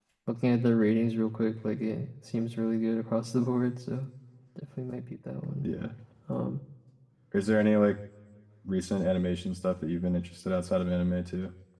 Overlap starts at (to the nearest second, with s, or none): none